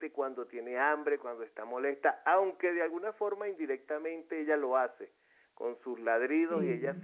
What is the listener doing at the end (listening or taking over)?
listening